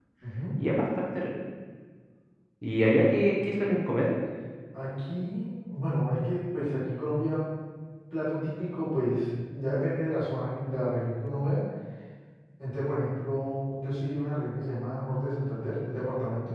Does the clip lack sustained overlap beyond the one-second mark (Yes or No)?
Yes